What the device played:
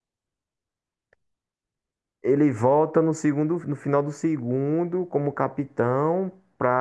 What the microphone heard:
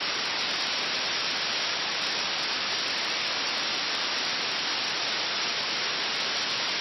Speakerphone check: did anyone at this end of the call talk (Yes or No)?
No